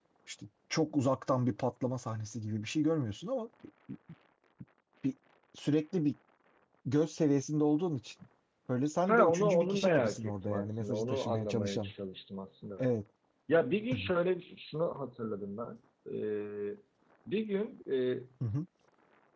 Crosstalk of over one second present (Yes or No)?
Yes